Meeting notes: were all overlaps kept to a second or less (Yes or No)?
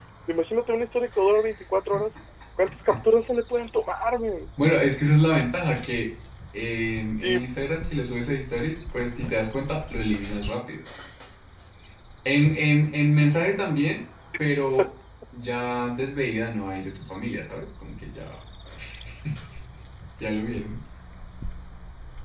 Yes